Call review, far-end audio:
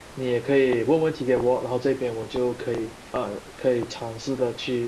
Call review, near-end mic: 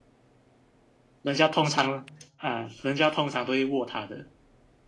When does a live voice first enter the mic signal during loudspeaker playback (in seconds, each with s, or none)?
1.2 s